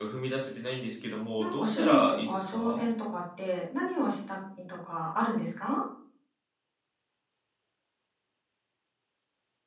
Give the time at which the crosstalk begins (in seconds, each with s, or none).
1.4 s